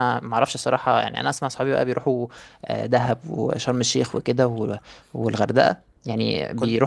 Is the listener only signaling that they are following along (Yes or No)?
No